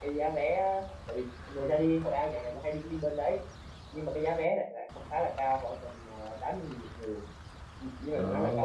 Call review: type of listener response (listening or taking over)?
listening